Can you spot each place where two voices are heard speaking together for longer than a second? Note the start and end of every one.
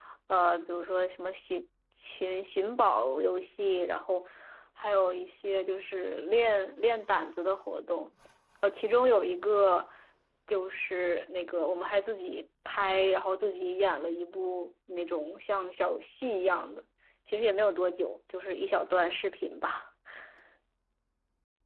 none

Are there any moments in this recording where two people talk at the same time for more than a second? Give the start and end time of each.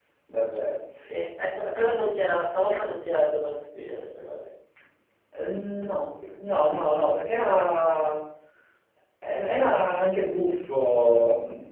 none

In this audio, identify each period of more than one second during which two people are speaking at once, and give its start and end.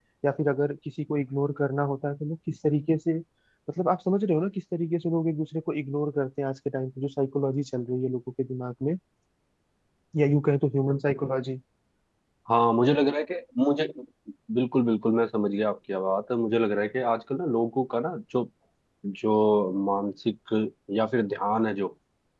none

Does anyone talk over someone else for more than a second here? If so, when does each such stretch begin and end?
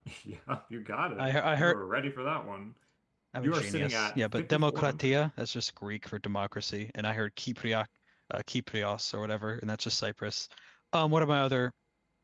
3.4-5.2

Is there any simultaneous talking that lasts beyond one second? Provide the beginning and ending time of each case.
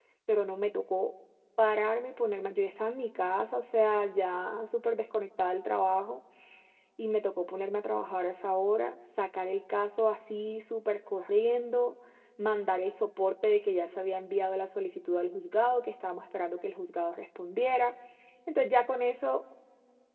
none

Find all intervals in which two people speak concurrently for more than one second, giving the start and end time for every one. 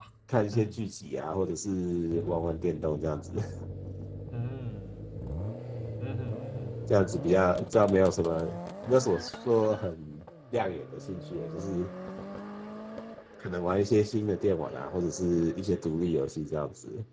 none

